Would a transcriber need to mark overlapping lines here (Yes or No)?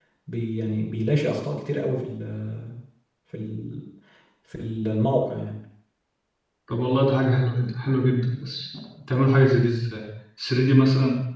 No